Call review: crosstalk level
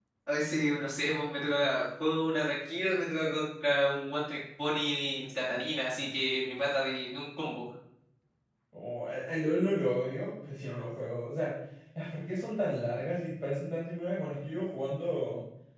none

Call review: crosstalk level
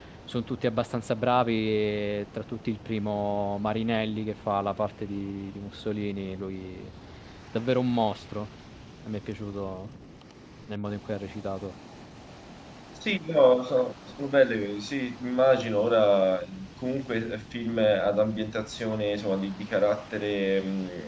none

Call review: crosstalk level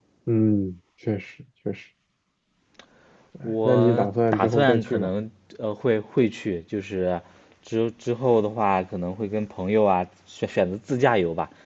present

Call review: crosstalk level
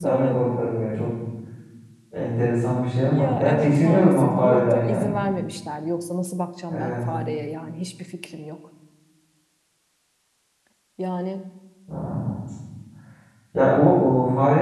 present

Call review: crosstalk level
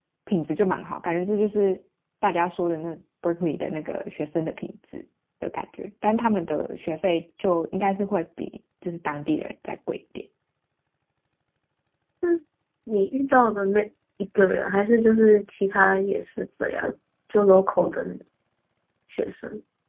none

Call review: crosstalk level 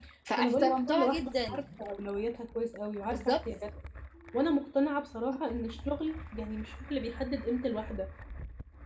present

